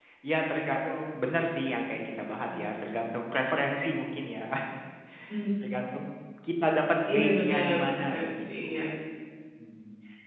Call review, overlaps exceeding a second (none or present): present